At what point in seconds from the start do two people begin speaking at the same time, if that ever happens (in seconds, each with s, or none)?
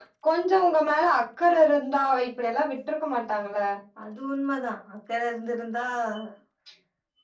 none